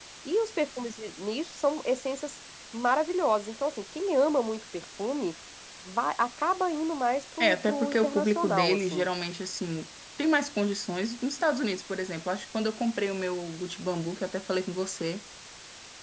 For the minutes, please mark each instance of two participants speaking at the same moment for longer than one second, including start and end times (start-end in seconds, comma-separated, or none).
7.4-9.1